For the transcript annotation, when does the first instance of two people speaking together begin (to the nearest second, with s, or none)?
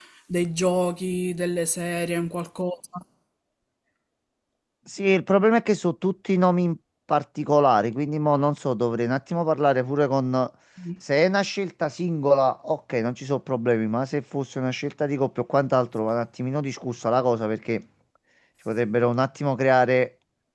none